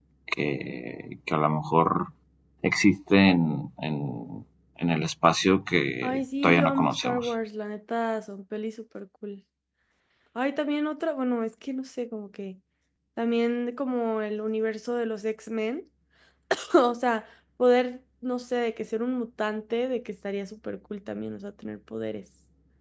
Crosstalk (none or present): present